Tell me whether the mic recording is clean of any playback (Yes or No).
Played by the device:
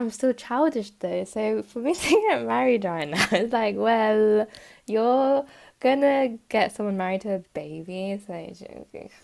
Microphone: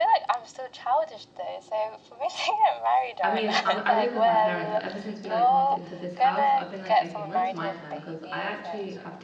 No